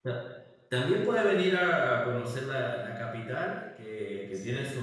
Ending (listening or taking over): listening